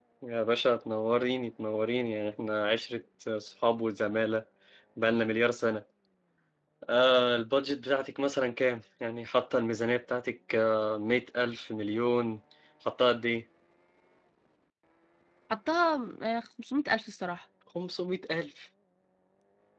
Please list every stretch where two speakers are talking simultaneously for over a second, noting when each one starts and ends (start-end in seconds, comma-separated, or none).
none